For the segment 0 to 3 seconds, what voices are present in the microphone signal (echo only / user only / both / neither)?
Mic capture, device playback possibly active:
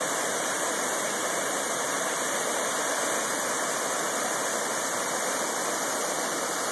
neither